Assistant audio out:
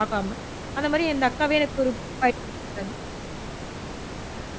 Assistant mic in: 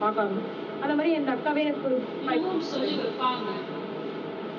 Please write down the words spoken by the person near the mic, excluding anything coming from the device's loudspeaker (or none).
என்னமோ ஒண்ணு சொல்லி வைப்பாங்க.